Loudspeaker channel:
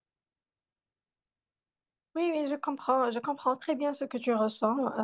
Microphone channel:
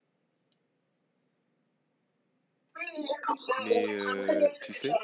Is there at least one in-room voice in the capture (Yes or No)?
Yes